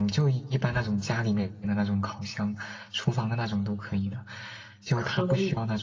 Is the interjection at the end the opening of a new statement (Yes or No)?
No